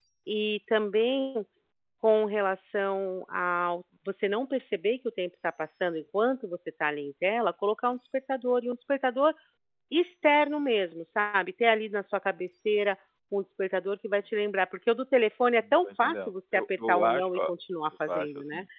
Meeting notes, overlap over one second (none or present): present